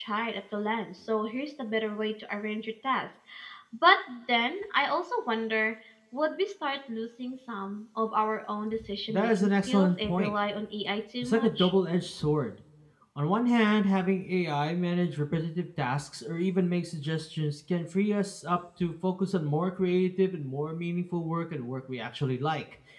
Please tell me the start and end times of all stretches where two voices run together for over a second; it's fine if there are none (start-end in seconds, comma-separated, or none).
9.1-10.3